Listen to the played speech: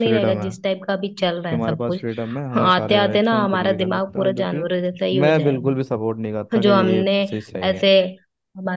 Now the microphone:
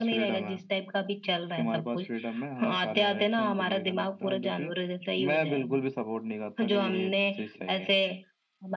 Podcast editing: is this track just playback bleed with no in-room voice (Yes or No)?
Yes